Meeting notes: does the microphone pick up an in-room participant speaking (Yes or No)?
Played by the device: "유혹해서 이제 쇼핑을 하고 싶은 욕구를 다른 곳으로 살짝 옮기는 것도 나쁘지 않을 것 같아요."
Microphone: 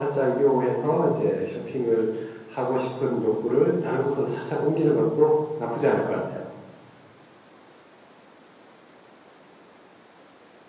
No